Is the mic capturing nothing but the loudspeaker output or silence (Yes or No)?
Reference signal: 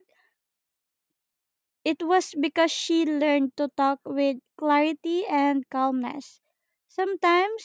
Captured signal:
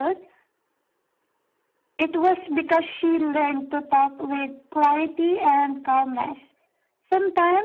Yes